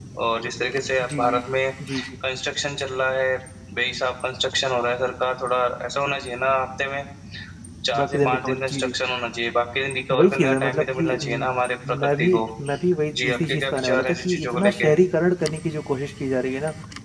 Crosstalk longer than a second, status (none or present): present